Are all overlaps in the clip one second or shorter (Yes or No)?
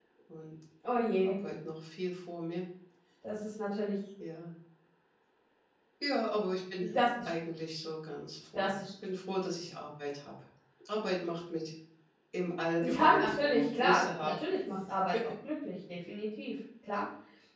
No